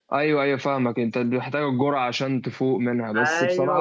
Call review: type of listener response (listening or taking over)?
taking over